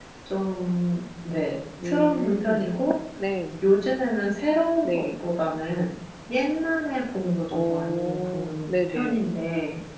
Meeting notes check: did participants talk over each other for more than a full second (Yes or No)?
Yes